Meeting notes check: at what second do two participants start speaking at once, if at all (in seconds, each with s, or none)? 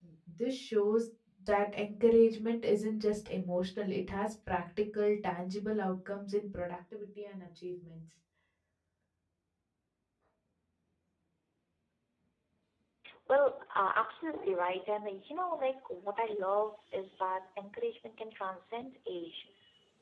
none